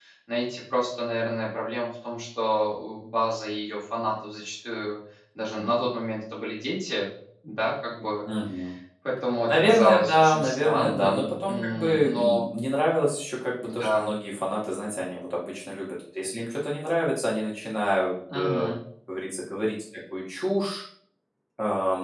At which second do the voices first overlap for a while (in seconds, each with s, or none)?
9.5 s